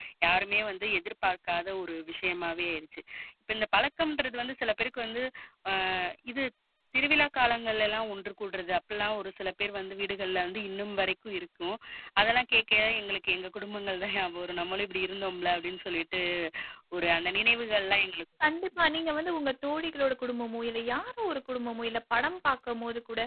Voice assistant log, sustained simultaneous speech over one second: none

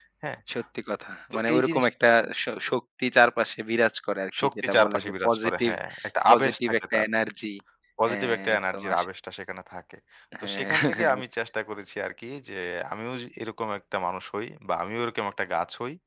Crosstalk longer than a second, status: present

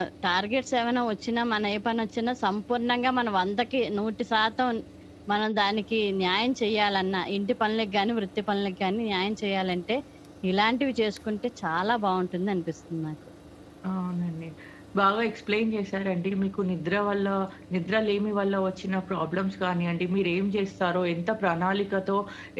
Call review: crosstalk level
none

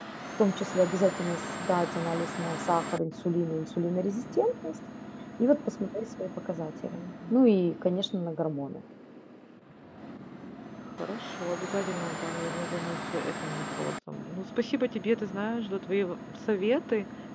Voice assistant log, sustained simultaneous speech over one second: none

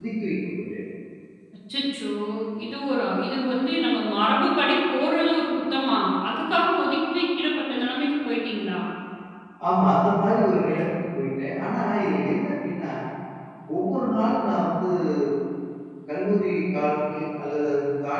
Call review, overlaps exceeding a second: none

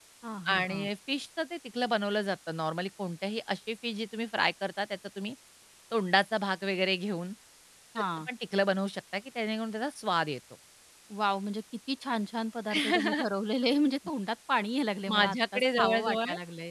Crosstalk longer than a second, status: present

